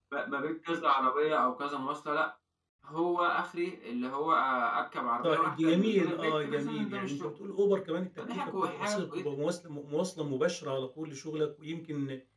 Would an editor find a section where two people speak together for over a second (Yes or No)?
Yes